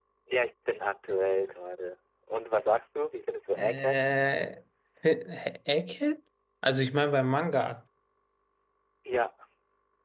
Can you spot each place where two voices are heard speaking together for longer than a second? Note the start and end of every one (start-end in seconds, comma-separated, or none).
none